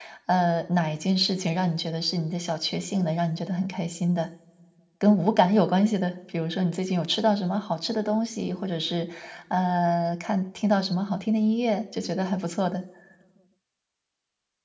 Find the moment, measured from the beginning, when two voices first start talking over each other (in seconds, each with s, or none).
none